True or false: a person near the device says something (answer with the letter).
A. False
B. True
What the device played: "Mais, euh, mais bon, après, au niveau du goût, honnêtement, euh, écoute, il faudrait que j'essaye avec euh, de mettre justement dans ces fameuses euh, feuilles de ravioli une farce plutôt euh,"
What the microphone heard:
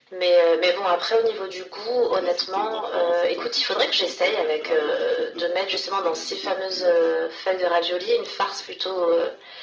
B